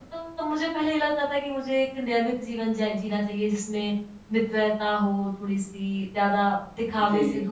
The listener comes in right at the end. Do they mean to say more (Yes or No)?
No